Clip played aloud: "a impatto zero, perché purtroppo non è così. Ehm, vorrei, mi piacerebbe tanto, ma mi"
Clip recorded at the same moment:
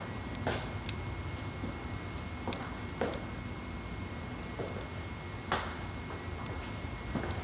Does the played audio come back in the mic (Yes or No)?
No